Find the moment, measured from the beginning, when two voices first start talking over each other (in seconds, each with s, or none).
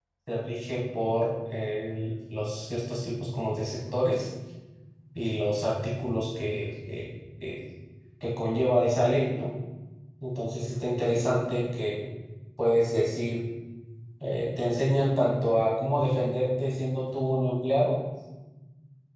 none